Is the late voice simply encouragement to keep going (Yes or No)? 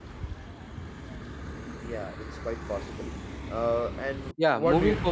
No